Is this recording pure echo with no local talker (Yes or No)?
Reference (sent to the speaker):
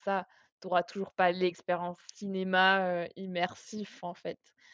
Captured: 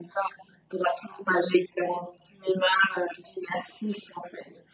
Yes